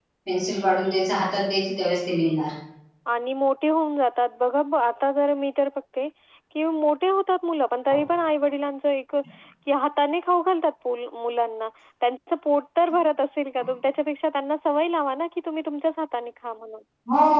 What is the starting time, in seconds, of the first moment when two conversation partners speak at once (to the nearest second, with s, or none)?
none